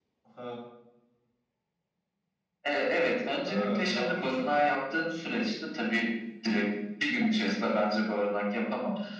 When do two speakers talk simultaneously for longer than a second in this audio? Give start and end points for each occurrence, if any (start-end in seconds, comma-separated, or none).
3.5-4.7